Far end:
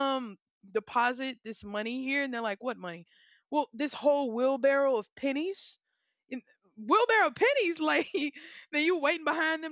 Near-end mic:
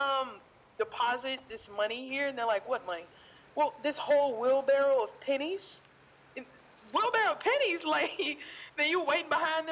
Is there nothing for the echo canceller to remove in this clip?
No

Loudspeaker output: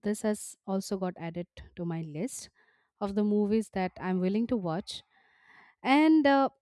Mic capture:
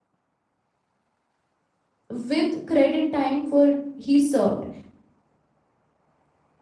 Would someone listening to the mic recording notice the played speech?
No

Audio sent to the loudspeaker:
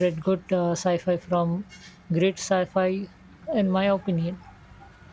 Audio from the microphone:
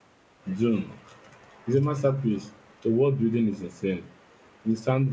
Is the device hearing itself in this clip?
No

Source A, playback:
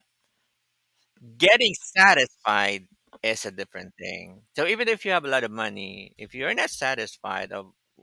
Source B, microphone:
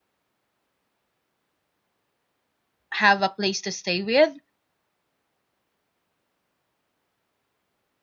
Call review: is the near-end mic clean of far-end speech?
Yes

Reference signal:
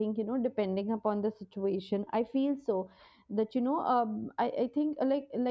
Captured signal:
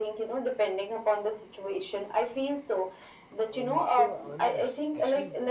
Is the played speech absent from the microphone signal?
No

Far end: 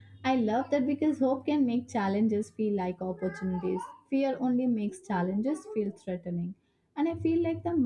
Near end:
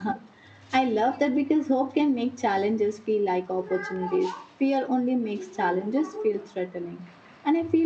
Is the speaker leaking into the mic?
Yes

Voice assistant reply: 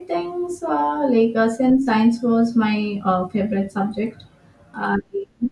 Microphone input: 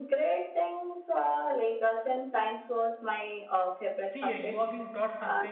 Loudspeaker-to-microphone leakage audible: Yes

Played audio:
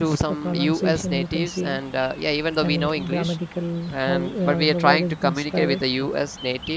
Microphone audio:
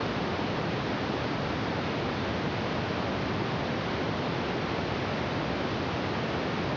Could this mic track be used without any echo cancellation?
Yes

